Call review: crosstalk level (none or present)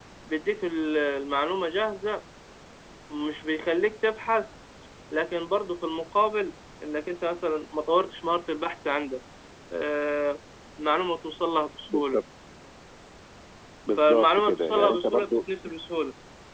present